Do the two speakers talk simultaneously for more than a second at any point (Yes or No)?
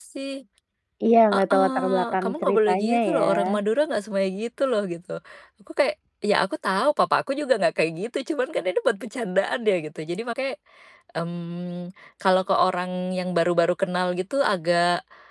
Yes